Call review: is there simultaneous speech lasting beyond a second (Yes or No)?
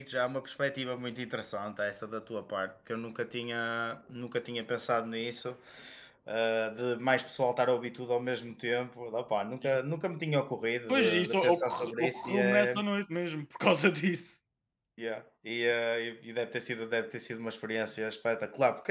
Yes